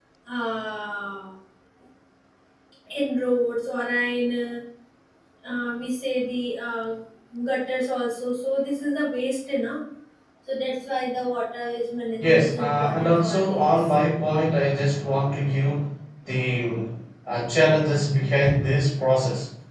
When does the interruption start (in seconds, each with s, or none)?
12.2 s